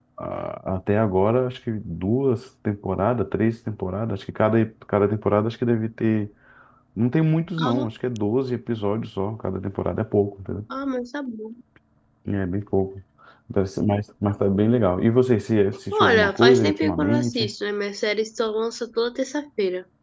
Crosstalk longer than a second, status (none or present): present